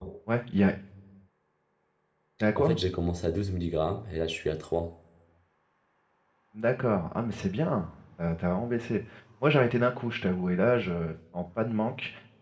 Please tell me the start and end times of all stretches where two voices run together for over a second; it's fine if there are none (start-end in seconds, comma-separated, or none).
none